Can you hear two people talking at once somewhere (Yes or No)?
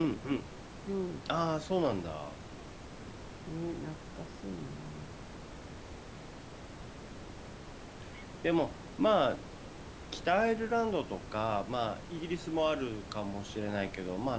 No